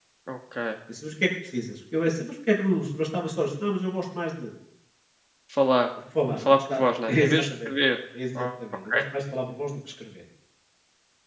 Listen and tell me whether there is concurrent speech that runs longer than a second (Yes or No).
Yes